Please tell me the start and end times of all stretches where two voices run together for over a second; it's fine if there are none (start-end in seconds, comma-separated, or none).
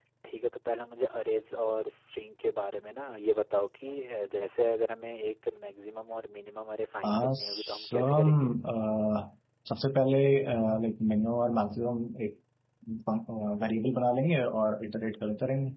7.1-8.3